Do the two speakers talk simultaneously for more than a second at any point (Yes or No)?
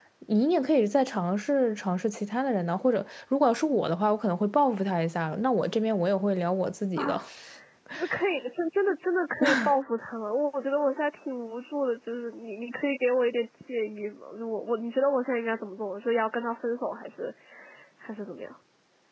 No